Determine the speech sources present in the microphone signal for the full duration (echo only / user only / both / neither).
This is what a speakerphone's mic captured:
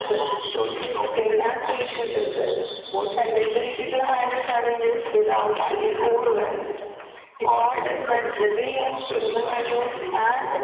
echo only